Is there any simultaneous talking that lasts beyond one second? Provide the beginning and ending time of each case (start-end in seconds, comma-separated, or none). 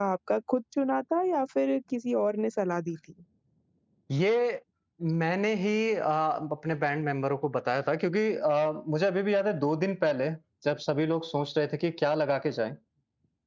none